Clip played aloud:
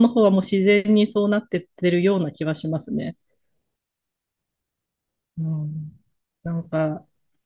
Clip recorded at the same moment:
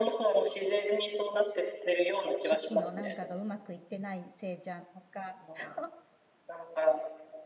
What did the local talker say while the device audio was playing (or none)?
初期のなんかがうまくいってないせいじゃんとか、そう、